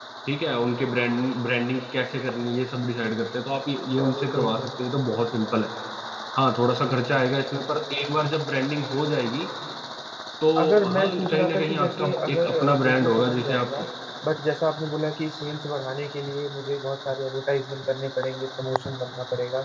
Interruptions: present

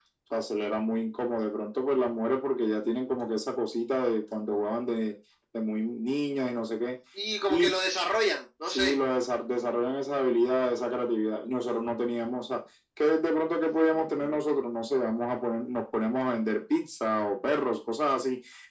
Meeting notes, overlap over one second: none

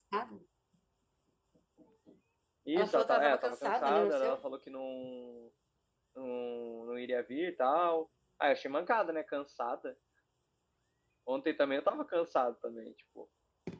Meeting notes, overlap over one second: present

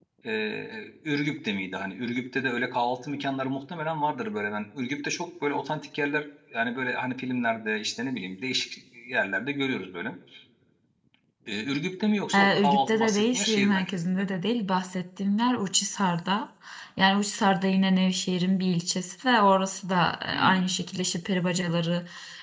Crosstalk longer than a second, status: present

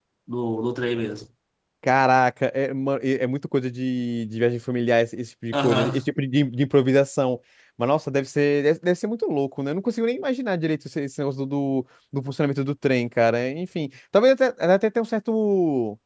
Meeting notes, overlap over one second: none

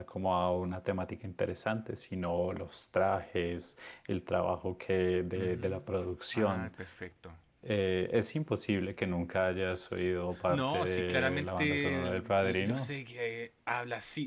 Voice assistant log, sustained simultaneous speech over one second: present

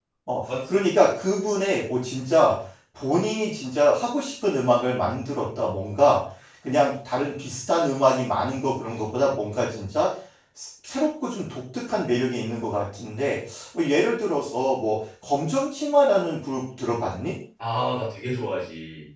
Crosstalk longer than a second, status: none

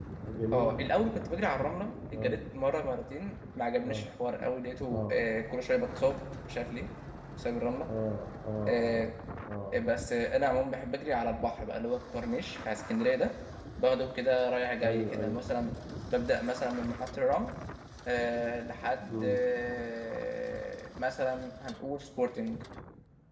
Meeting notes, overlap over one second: none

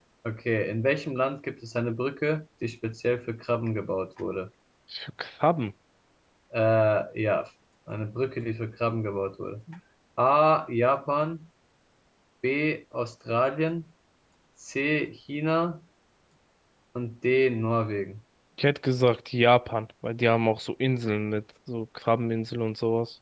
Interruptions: none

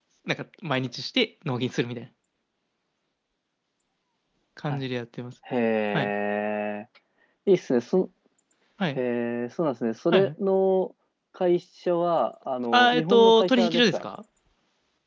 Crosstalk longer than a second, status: present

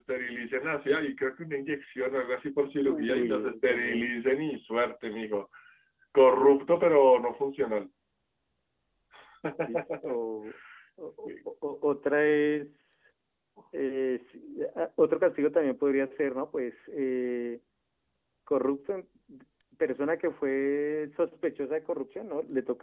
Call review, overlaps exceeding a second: present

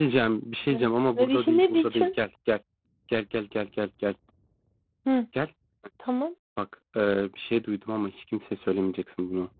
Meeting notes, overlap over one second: present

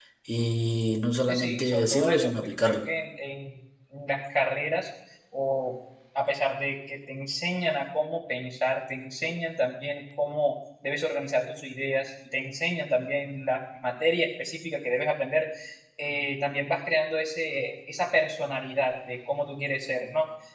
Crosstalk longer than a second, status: present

